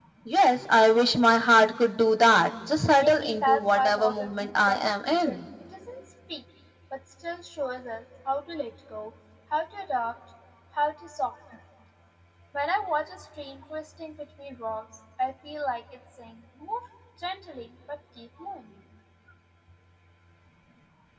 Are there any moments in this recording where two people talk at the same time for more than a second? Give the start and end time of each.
3.0-5.4

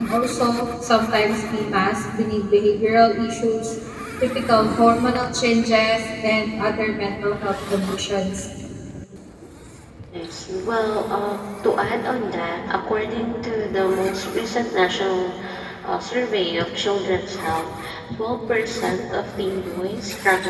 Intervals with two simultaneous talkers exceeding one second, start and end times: none

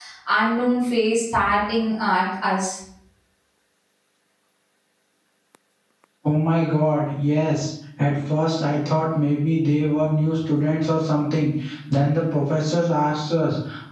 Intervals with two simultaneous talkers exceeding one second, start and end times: none

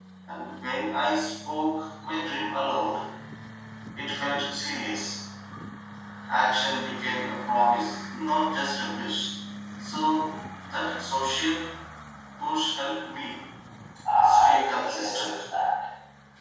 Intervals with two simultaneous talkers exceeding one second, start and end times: 14.2-15.4

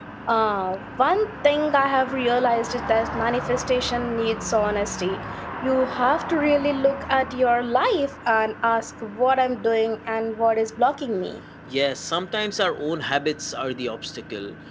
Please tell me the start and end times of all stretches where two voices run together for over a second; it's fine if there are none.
none

